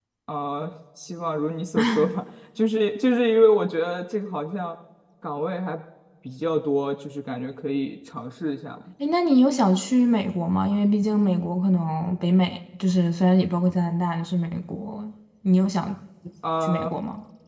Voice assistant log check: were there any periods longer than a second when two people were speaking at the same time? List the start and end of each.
none

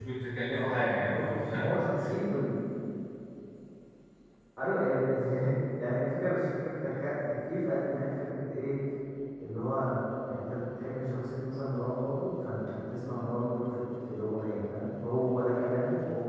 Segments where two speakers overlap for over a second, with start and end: 0.5-1.8

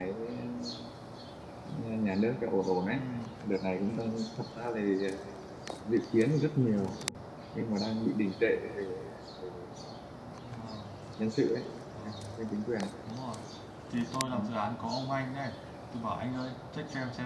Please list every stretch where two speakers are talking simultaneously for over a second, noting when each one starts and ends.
none

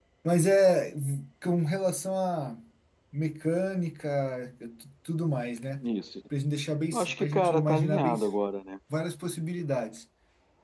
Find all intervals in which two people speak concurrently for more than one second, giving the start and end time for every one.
6.9-8.1

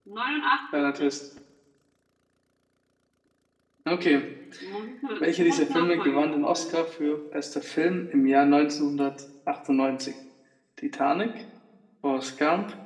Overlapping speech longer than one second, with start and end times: 5.2-6.8

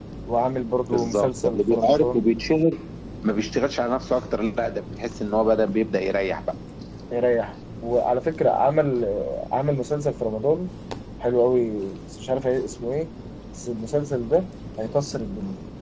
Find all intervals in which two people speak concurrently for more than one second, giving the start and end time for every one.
0.9-2.2

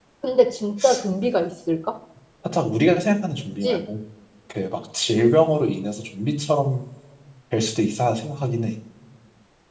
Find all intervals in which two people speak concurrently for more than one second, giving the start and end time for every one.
none

